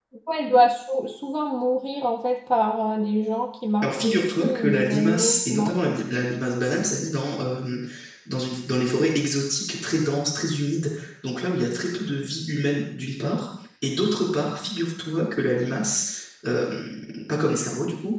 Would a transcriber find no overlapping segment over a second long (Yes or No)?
No